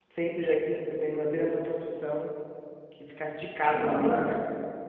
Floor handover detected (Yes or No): No